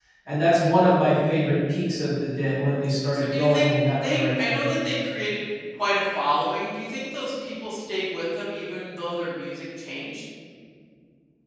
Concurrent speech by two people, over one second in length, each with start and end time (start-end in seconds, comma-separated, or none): 3.1-4.7